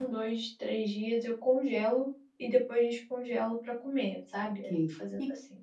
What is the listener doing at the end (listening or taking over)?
taking over